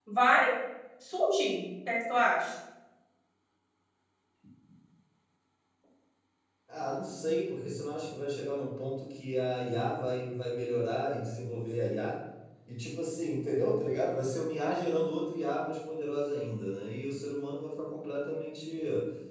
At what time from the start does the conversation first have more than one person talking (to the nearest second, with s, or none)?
none